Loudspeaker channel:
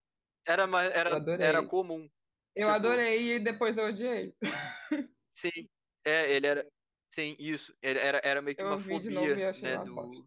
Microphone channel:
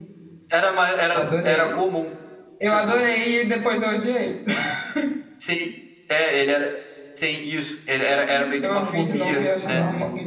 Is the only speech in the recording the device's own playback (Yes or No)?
No